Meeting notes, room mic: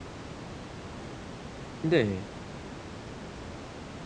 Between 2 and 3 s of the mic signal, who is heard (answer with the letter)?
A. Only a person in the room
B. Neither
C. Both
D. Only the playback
A